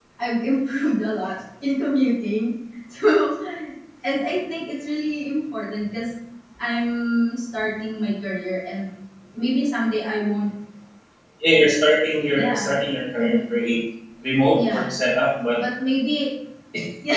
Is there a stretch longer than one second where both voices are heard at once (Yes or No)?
No